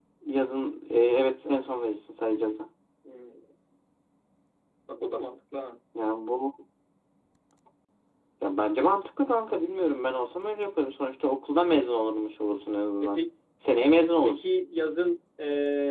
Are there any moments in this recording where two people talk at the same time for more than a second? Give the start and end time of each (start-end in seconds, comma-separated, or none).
none